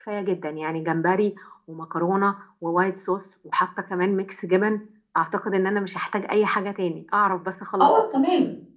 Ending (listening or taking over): taking over